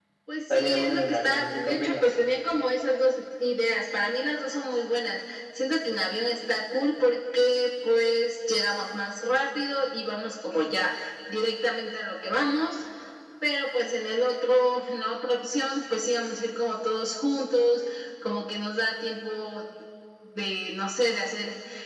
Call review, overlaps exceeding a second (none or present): present